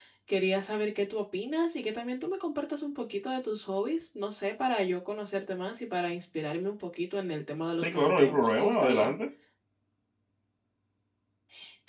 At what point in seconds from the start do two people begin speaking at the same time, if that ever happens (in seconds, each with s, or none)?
7.8 s